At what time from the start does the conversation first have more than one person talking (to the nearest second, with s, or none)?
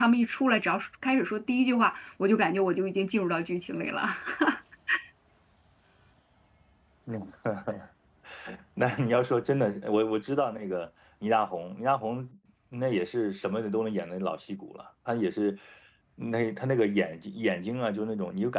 none